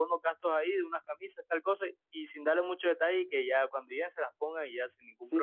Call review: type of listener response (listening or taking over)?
taking over